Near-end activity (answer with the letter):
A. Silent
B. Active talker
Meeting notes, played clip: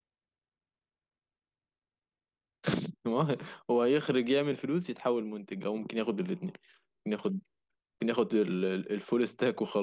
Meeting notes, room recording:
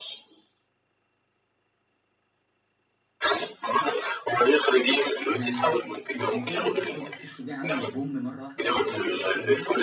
B